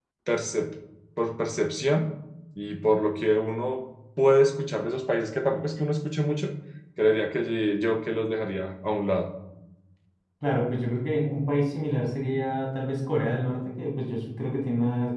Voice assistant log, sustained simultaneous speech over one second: none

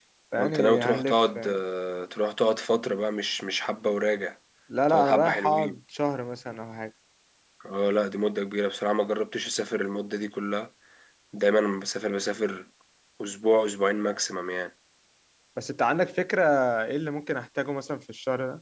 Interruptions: present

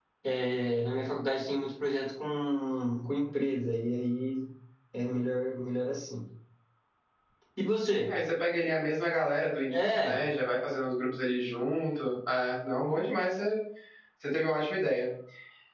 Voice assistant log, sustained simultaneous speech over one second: none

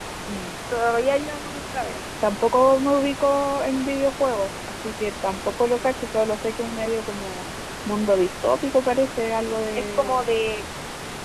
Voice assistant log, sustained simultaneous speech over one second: none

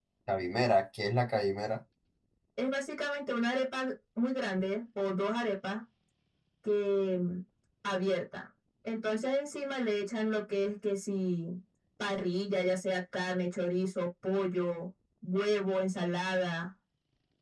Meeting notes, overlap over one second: none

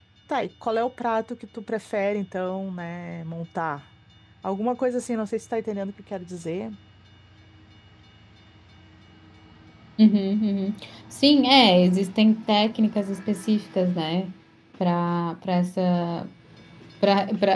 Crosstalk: none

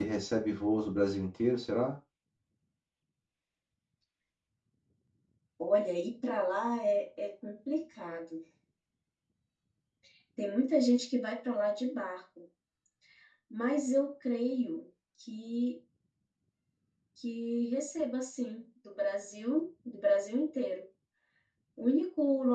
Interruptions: none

